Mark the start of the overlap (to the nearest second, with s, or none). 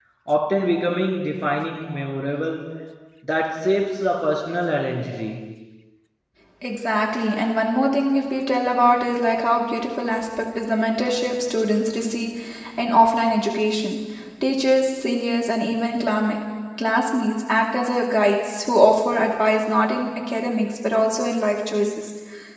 none